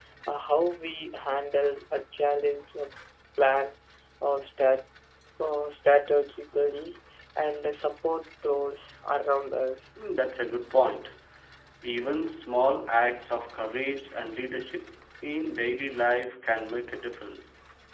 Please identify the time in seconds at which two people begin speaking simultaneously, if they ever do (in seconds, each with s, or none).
none